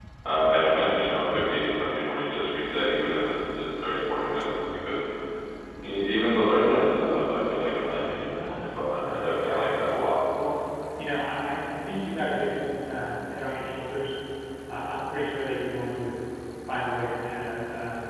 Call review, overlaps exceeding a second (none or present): present